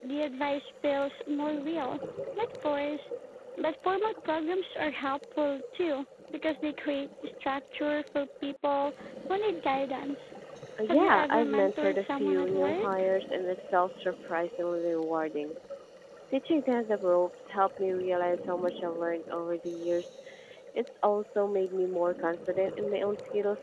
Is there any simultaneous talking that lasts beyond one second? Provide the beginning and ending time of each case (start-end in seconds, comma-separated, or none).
10.9-13.1